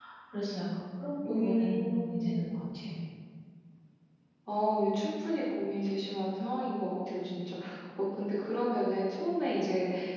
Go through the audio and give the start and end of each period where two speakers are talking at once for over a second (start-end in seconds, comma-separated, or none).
1.2-2.5